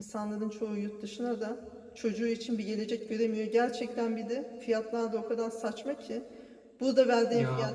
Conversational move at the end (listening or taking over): listening